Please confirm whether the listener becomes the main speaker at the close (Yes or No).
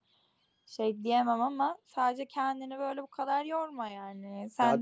No